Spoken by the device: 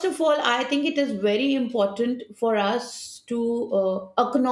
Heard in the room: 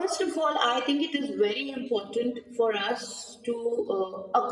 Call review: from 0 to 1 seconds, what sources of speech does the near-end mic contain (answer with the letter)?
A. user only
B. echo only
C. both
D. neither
B